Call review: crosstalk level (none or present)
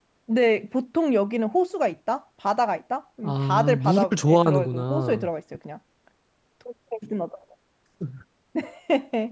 present